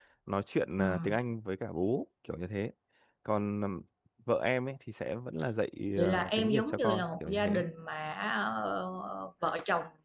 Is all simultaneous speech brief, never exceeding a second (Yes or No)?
No